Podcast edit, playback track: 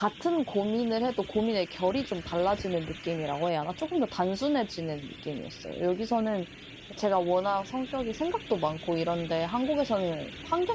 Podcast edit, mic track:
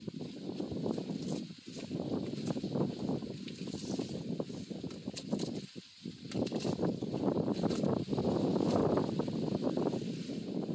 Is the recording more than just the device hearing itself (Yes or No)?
No